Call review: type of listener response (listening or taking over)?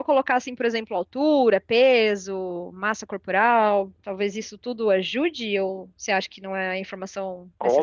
taking over